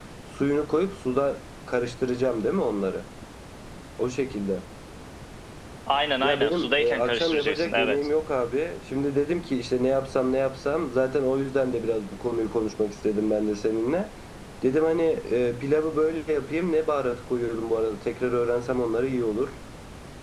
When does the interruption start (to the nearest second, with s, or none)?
6 s